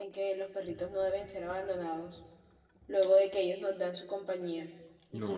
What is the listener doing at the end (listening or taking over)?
taking over